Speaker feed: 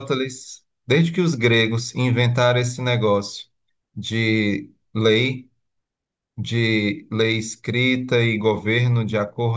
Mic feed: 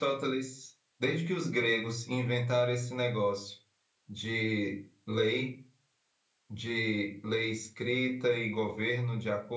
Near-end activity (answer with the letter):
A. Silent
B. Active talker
A